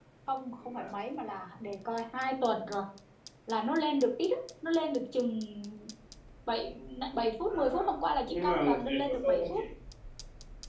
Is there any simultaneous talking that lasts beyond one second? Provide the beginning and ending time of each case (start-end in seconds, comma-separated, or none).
8.3-9.6